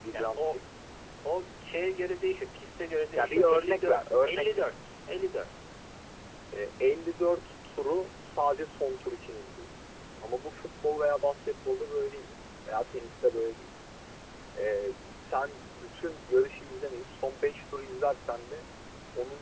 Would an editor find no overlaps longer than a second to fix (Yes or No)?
No